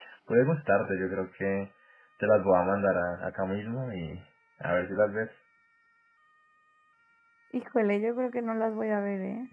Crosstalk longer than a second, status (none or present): none